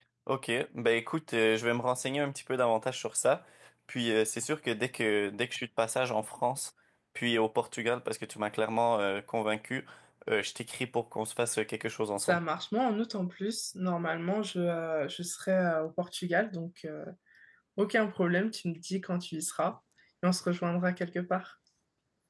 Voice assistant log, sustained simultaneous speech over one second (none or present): none